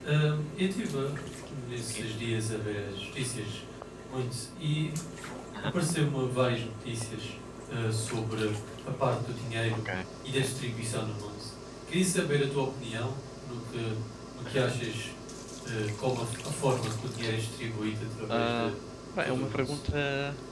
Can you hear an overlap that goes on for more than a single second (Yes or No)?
No